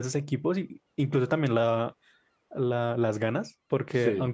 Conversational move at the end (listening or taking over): listening